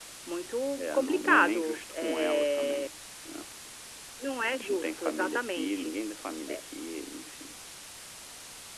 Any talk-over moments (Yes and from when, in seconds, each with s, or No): Yes, from 0.8 s